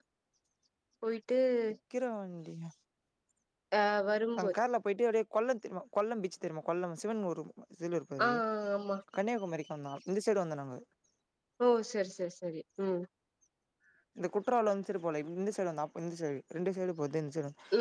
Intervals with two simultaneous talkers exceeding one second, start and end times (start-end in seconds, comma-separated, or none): none